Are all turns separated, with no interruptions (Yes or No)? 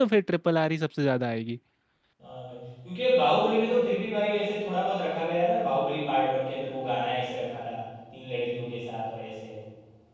Yes